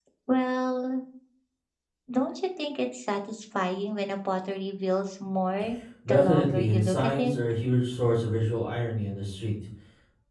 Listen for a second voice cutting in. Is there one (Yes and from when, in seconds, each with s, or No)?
Yes, from 6.1 s